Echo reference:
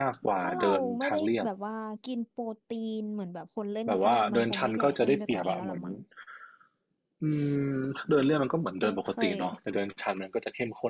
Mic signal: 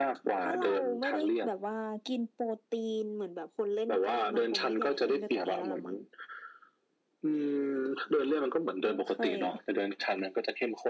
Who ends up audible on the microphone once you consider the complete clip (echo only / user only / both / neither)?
echo only